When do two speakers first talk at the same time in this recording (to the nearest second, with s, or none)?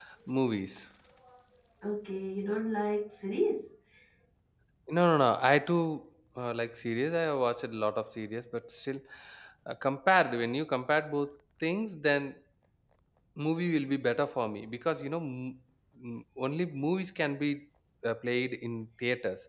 none